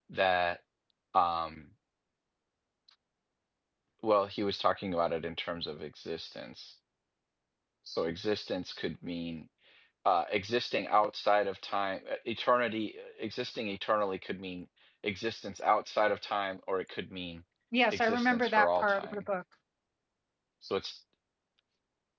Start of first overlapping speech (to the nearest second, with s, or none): 18 s